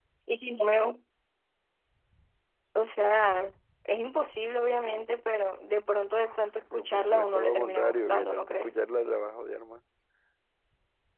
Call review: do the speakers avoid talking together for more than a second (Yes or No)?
No